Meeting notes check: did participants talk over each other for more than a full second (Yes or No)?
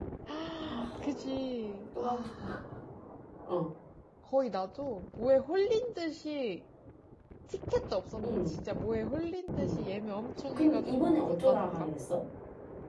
Yes